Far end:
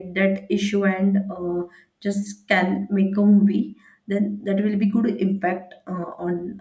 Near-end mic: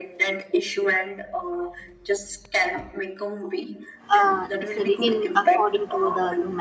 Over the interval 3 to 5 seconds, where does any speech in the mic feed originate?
both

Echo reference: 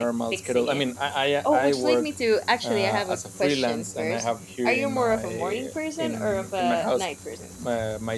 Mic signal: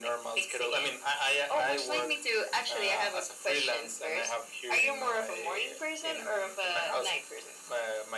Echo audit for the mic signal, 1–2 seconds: echo only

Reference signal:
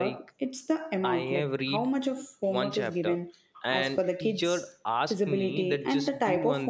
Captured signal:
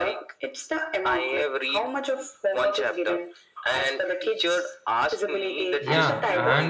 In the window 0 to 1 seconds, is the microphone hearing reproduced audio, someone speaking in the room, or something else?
echo only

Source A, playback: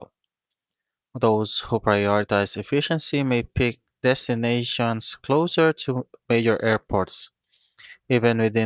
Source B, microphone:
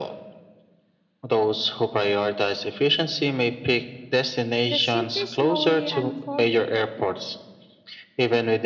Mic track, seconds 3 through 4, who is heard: echo only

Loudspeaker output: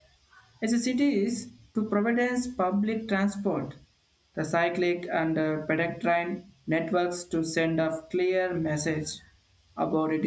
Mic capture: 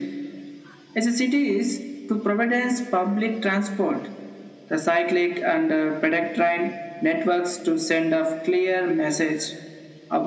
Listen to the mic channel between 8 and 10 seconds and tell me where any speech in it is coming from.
echo only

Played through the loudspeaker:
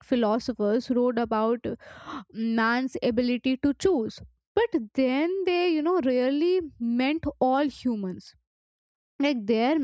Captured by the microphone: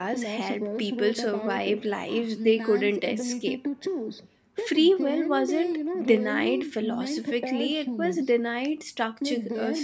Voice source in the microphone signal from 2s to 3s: both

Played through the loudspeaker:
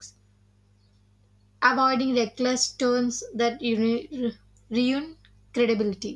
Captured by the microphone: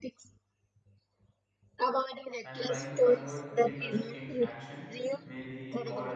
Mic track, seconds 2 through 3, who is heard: both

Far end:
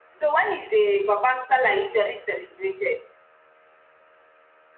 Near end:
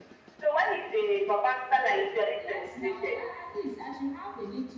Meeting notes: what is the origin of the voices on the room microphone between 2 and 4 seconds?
both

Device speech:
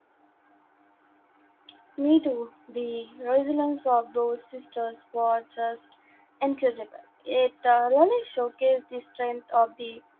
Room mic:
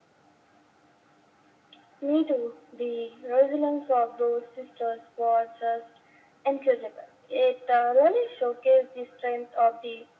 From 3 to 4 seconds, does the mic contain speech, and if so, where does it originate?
echo only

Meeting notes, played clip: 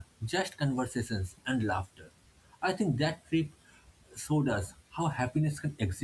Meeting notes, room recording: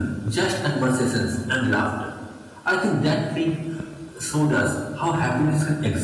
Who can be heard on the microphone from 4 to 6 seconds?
echo only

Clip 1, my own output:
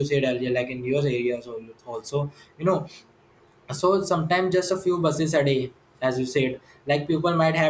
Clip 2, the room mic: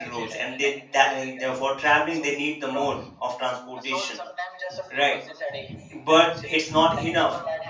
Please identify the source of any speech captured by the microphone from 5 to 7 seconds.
both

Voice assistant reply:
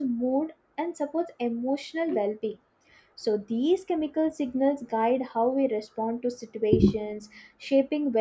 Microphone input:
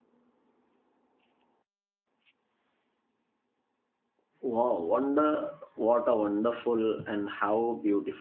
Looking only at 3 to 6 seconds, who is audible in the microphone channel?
user only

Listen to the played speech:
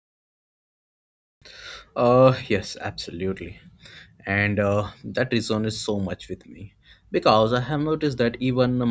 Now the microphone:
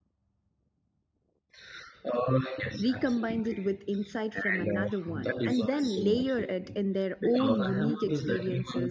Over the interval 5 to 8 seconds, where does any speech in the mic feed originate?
both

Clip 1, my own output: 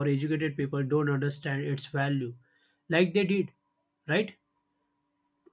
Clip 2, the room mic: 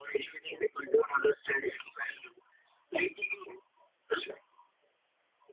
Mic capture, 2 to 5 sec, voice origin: echo only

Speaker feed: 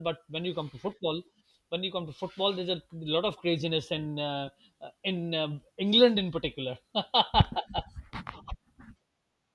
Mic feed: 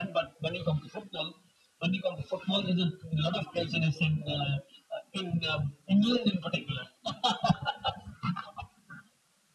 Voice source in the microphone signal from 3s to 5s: echo only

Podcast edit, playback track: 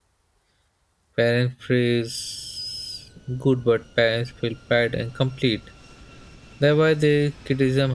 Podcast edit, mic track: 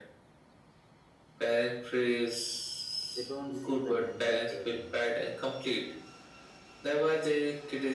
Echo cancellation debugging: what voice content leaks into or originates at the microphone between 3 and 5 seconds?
both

